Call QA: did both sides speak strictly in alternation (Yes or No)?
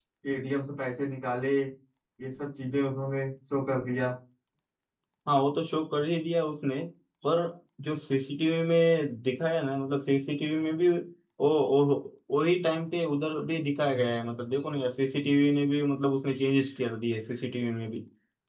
Yes